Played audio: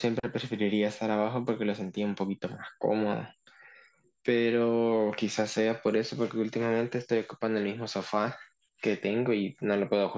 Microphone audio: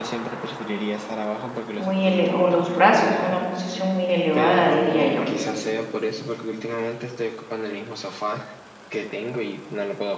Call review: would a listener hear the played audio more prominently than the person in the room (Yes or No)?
No